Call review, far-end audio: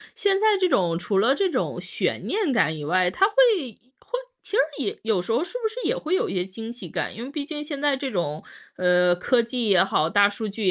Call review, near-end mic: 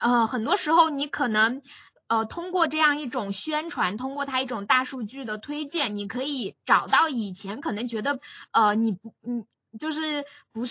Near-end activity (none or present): present